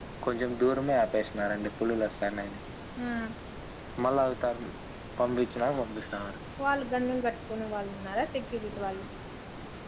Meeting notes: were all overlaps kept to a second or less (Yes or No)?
Yes